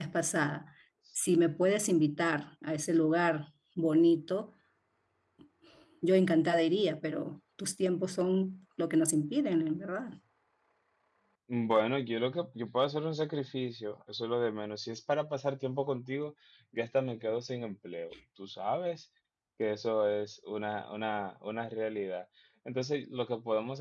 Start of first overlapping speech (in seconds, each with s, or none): none